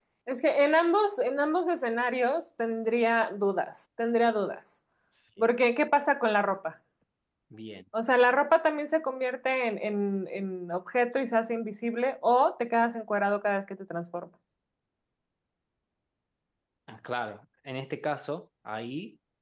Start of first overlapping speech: none

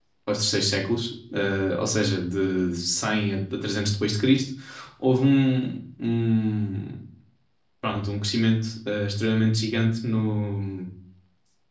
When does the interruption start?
none

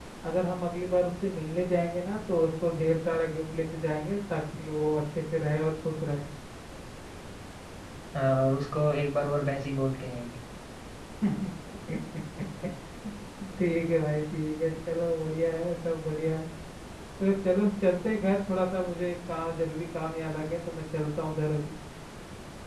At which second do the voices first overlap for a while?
none

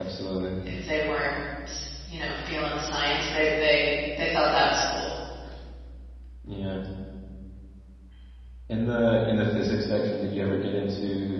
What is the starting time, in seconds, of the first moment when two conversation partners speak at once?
none

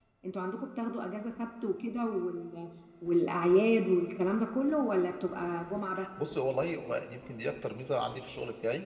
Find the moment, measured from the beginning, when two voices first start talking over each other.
none

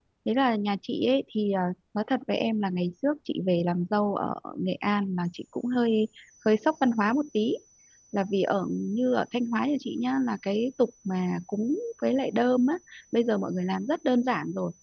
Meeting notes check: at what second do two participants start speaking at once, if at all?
none

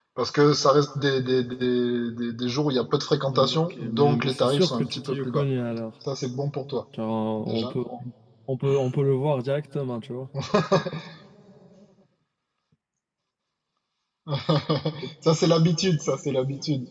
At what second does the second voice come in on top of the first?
3.3 s

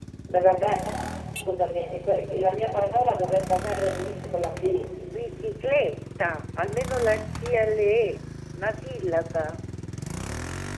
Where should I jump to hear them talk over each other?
none

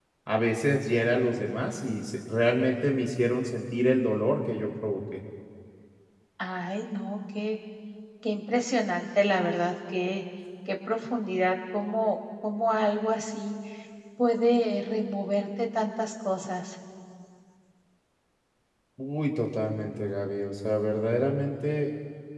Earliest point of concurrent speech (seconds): none

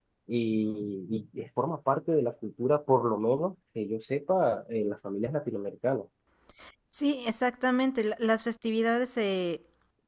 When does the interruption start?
none

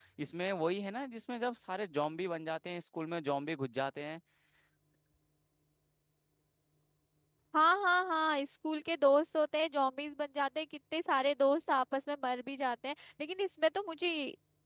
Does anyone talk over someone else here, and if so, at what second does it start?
none

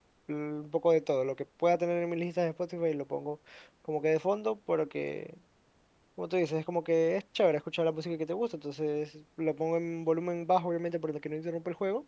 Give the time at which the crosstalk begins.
none

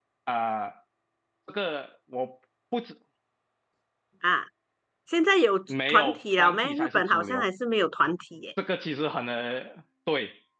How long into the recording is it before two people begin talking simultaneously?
5.9 s

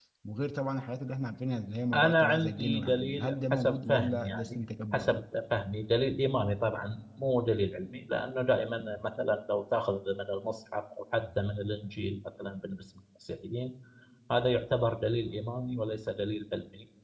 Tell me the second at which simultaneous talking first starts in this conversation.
1.9 s

